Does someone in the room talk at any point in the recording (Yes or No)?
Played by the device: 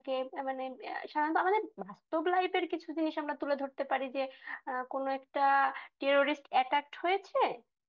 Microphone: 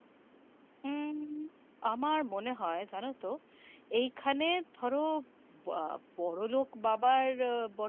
Yes